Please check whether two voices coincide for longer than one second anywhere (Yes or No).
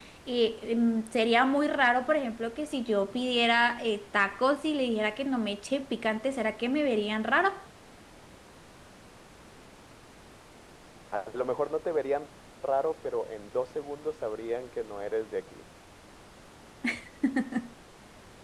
No